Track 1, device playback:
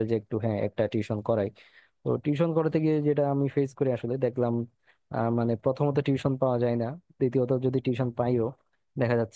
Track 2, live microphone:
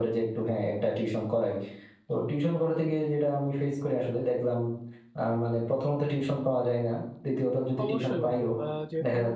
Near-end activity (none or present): present